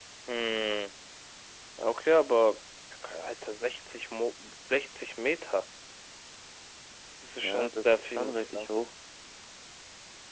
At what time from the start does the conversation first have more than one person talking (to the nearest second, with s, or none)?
7 s